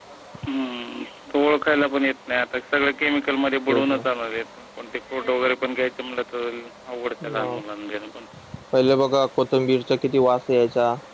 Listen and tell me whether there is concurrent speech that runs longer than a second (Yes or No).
No